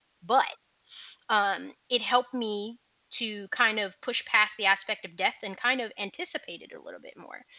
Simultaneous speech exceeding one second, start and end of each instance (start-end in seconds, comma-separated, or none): none